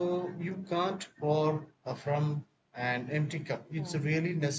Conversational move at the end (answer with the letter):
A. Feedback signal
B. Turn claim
A